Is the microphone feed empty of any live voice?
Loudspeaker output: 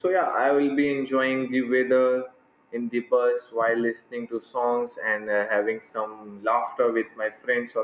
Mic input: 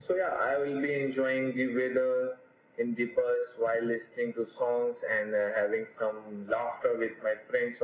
Yes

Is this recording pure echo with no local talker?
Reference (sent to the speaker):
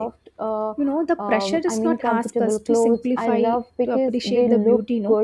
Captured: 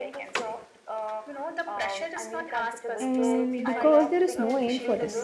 No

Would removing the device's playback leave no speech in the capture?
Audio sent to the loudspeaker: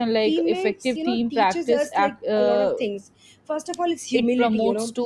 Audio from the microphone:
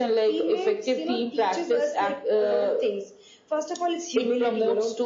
Yes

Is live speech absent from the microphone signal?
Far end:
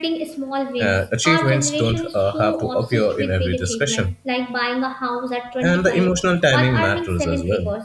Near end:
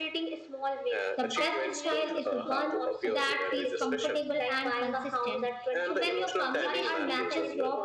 No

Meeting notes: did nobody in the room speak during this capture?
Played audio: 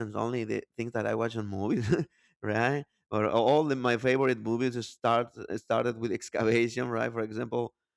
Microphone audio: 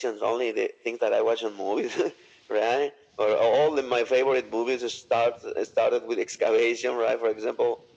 Yes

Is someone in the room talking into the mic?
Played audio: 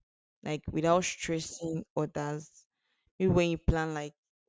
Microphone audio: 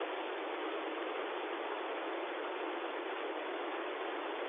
No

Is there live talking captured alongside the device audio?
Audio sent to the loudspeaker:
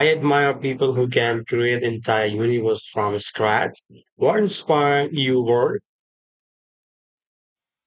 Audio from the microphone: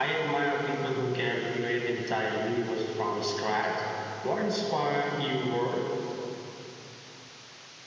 No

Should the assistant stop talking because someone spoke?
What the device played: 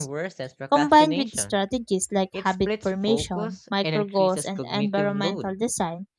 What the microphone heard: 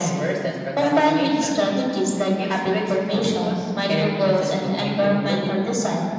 No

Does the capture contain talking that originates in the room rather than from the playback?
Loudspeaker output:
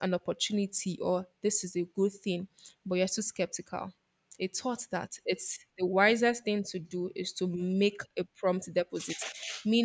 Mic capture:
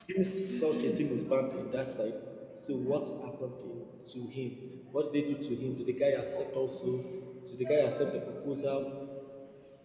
Yes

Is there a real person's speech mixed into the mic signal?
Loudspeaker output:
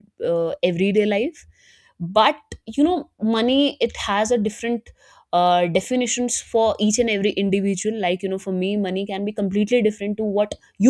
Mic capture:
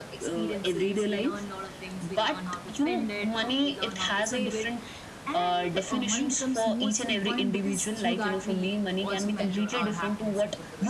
Yes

